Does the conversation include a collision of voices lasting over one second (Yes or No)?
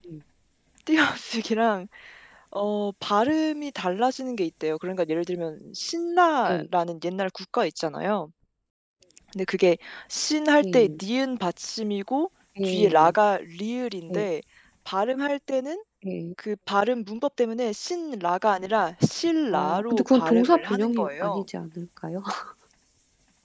Yes